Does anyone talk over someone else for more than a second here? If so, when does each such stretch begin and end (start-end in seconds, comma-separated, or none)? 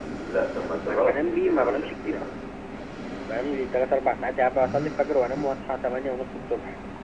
0.8-2.4